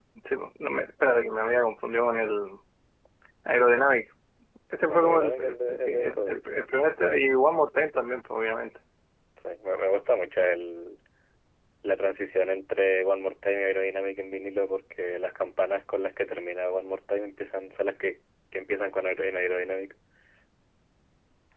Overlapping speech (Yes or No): Yes